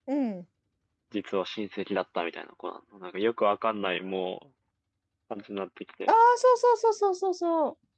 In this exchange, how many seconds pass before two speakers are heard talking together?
none

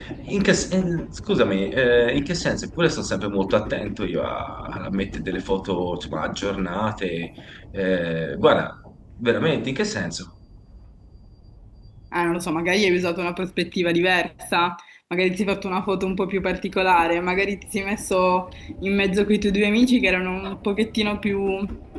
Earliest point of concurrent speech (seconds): none

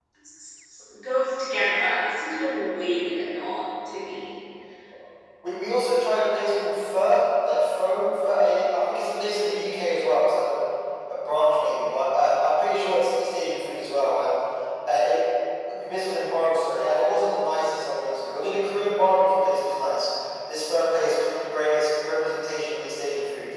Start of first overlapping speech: none

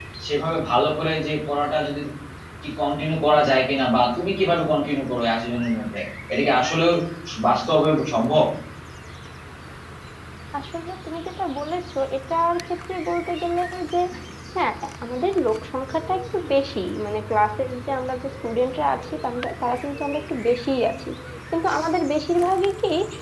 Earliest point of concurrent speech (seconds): none

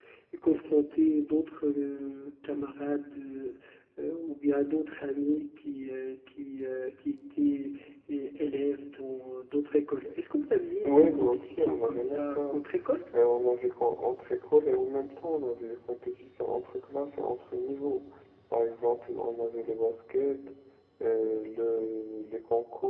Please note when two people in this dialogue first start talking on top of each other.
10.8 s

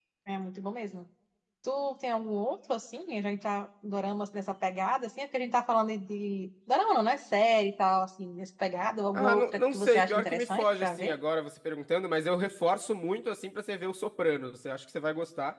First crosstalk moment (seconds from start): 9.1 s

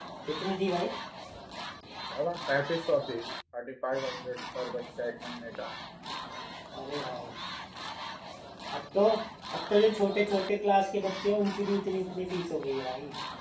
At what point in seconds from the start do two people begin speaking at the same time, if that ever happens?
none

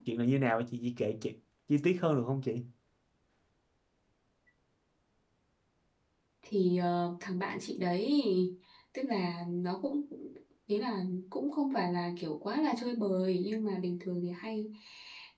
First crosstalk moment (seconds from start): none

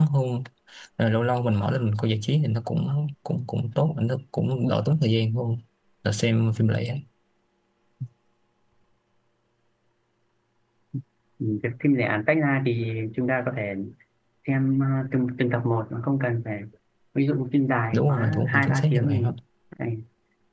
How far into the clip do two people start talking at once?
17.9 s

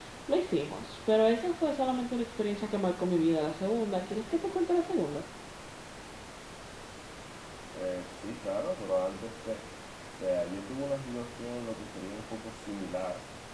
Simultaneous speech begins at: none

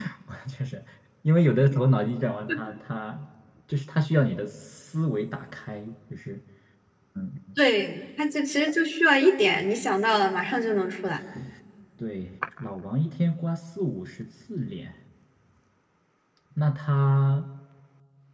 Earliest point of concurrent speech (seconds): none

